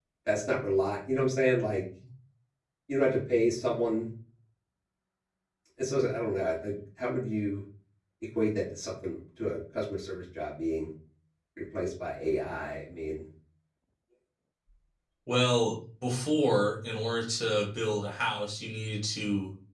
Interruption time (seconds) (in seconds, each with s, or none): none